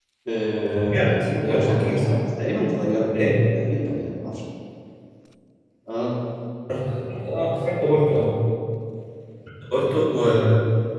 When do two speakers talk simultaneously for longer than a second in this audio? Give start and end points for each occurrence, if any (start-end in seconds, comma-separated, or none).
0.8-2.2